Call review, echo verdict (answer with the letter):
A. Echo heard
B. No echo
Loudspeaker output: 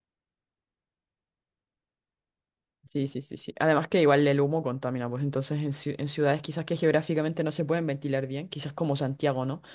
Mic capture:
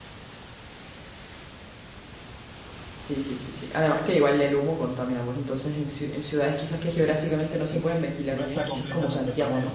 A